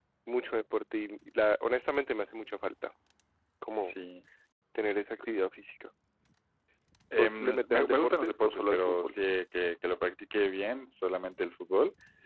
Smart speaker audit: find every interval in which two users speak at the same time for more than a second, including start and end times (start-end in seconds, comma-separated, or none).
7.1-9.2